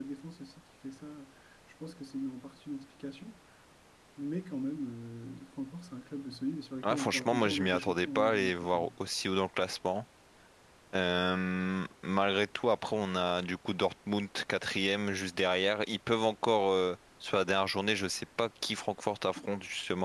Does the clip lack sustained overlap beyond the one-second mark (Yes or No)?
No